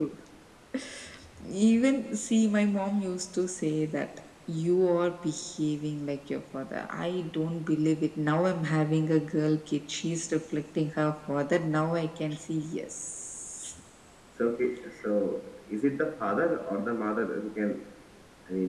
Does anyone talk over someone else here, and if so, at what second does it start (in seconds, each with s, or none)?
none